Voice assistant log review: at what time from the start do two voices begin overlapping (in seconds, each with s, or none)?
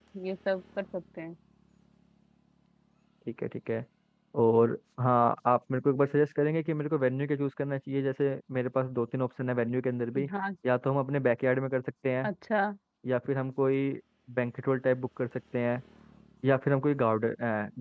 none